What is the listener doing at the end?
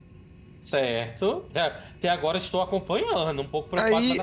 taking over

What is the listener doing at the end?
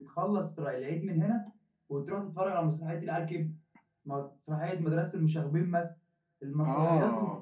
listening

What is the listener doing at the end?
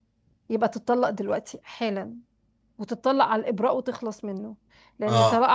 listening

